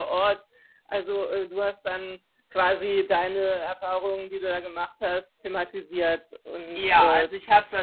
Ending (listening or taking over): taking over